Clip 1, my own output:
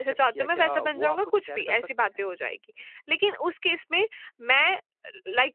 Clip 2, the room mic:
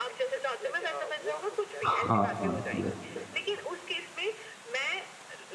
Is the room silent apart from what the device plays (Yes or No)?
No